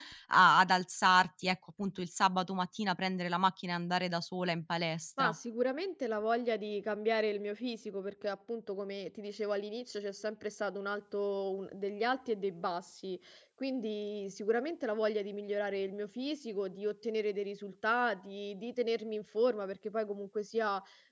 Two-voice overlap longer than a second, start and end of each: none

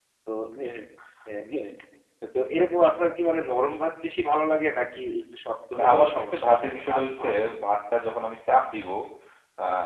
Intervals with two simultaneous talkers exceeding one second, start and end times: 5.8-7.3

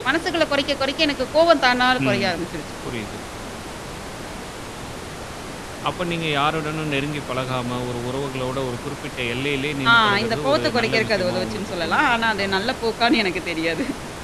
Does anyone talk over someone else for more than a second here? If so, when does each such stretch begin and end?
9.9-12.5

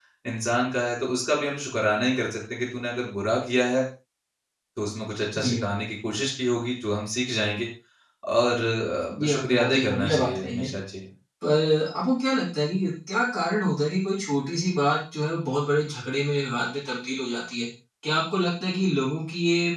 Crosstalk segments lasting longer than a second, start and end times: 9.2-10.7

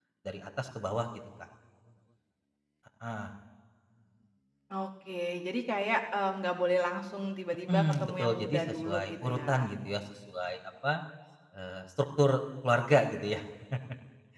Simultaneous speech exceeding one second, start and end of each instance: 7.7-9.7

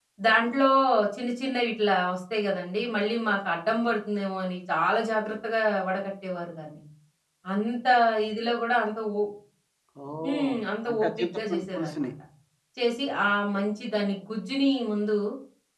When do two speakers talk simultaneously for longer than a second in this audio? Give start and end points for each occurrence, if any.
10.9-12.1

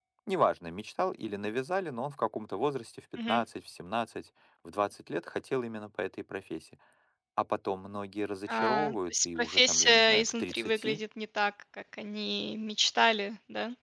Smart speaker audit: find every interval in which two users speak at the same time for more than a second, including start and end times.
8.5-11.0

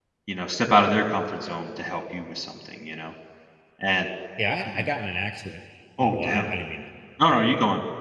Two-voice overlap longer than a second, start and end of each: none

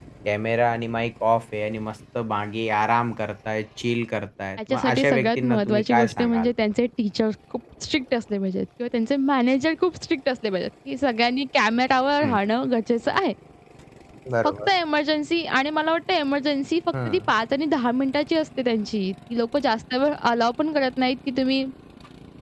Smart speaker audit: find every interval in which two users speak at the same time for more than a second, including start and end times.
4.6-6.5

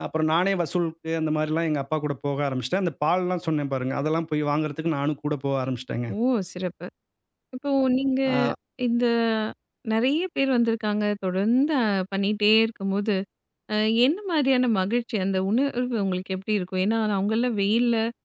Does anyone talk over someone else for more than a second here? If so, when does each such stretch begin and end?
none

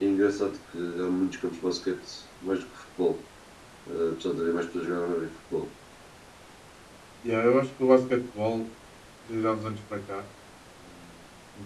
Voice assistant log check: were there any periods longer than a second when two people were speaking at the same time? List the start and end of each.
none

